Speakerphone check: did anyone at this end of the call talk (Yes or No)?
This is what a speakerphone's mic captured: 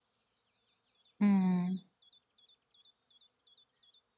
Yes